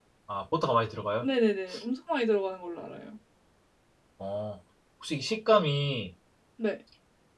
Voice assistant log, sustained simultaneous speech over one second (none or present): none